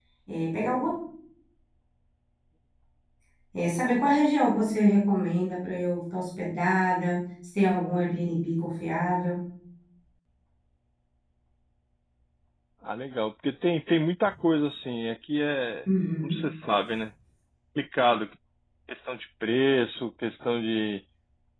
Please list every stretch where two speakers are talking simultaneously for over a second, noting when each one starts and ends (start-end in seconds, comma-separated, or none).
none